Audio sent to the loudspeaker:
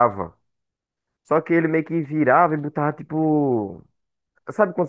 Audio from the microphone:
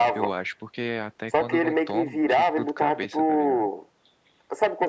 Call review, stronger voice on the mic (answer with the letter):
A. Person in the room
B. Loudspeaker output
B